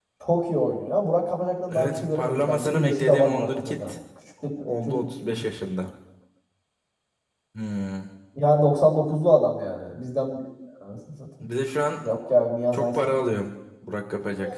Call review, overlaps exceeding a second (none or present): present